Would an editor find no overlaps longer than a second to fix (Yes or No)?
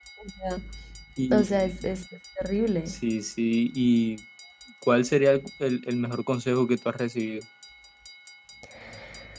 Yes